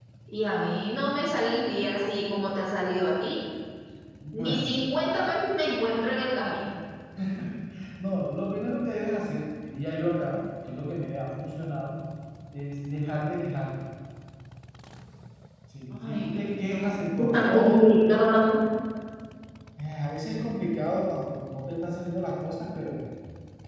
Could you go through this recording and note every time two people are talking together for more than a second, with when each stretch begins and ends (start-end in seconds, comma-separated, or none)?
15.9-17.9